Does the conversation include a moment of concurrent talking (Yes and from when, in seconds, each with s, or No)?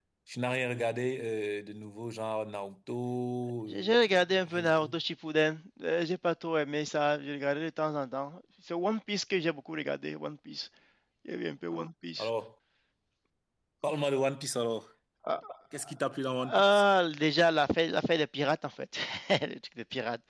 Yes, from 3.7 s